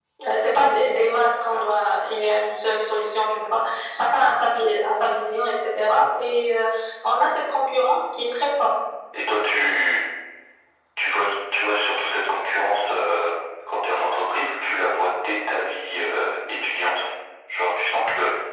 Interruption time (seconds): none

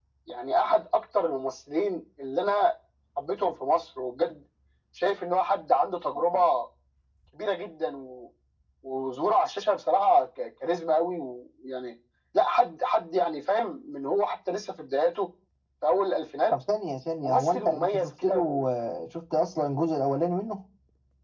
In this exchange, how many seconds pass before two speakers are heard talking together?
17.2 s

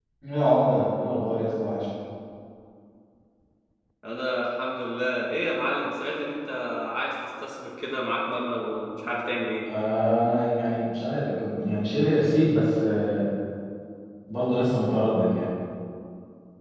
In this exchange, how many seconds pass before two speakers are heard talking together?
none

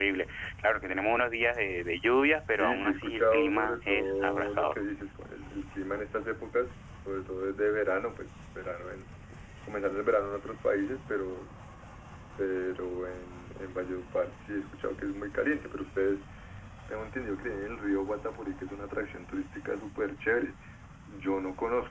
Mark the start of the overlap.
2.4 s

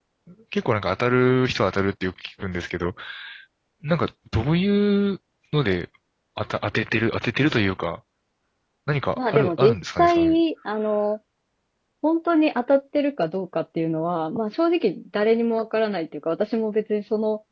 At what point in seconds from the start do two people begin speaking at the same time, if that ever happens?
9.2 s

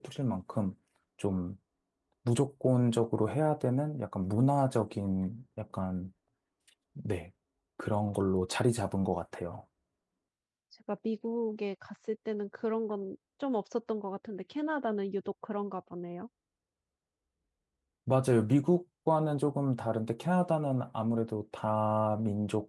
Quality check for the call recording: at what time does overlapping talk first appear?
none

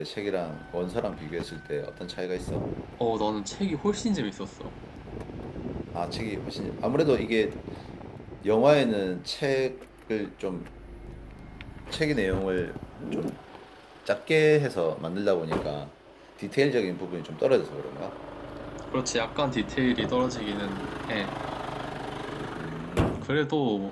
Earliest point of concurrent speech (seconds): none

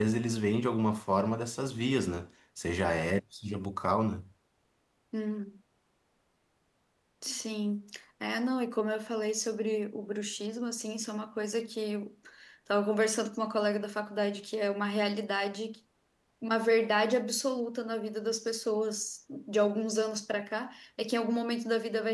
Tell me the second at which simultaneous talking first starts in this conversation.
none

